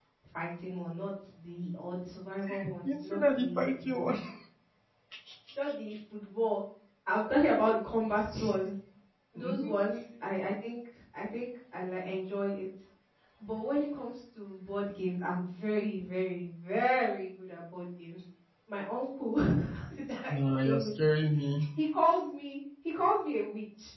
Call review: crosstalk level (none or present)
present